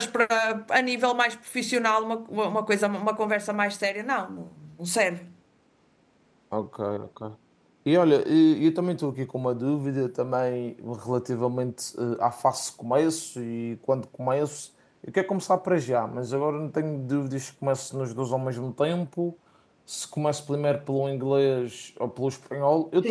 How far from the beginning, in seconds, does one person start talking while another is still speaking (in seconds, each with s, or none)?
none